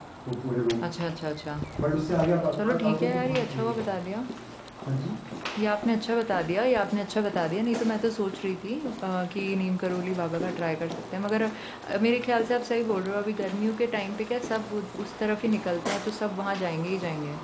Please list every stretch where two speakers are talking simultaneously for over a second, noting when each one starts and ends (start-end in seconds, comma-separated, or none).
2.5-3.8